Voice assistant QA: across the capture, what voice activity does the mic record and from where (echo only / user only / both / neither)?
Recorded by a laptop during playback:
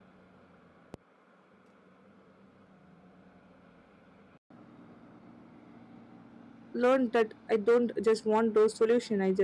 user only